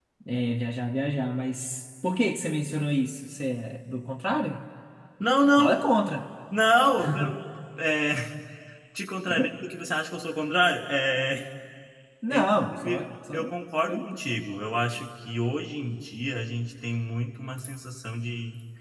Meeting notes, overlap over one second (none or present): present